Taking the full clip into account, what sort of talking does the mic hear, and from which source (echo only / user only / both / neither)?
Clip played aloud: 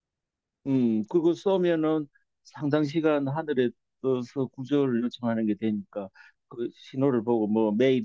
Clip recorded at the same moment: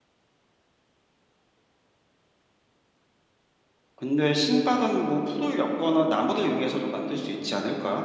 user only